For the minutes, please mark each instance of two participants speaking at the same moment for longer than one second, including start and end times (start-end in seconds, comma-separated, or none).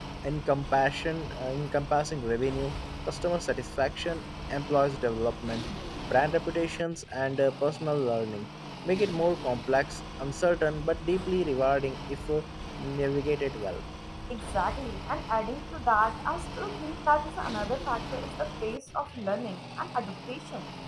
none